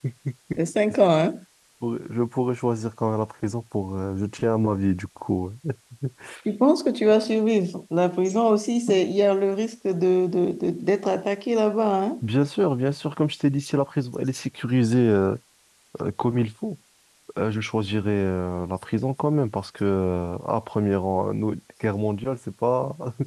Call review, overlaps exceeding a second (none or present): none